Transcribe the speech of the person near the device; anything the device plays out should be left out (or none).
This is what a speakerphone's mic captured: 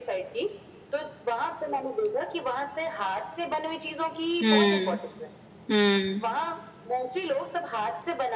हुँ, हुँ,